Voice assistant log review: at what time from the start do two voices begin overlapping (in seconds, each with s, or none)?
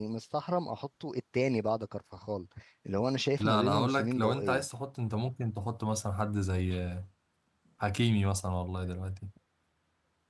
3.4 s